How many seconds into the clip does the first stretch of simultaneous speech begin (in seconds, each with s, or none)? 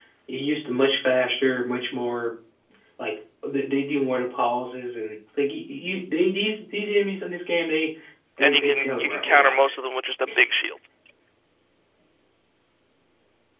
8.4 s